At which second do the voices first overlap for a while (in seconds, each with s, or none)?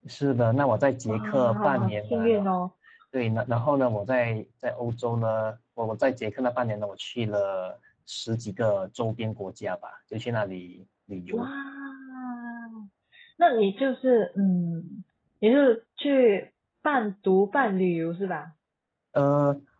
1.1 s